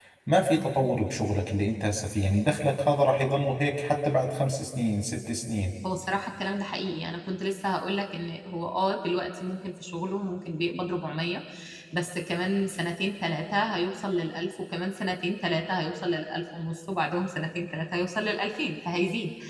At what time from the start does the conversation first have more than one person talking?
none

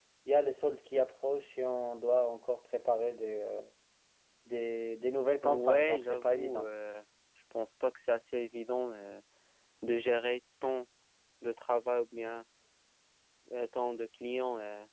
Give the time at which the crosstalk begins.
5.4 s

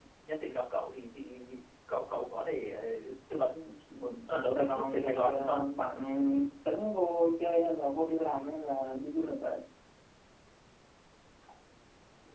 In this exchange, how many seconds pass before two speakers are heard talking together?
4.3 s

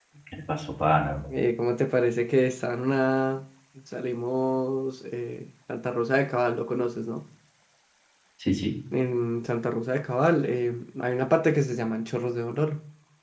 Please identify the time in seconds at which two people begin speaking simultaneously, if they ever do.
none

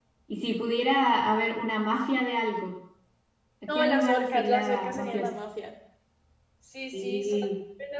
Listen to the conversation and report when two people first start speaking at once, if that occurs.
3.8 s

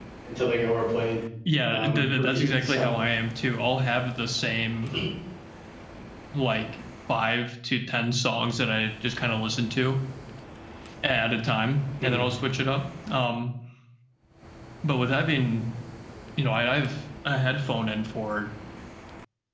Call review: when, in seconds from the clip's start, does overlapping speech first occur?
1.7 s

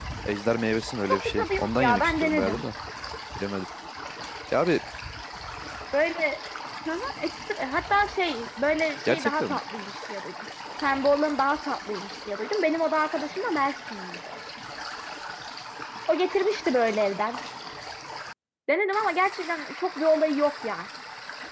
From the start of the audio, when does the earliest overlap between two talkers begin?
1.1 s

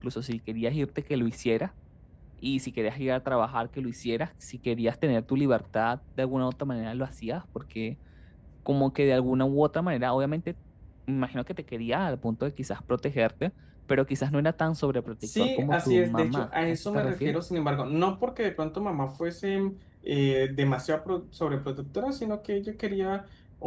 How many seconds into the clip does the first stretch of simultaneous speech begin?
15.2 s

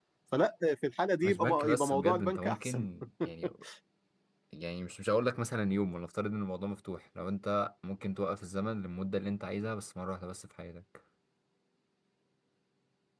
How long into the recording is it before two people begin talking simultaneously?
1.2 s

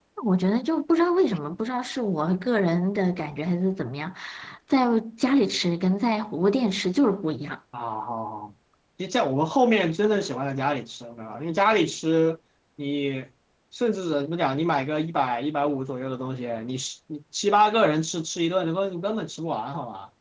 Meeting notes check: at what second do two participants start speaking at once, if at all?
none

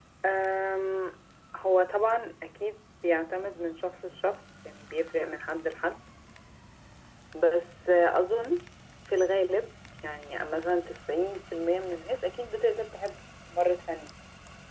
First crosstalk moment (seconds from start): none

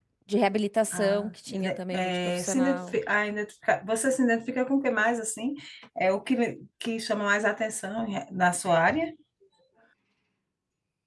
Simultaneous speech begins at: 0.9 s

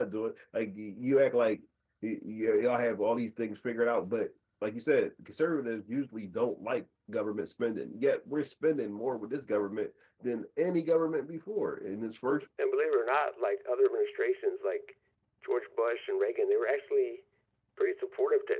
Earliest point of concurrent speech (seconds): none

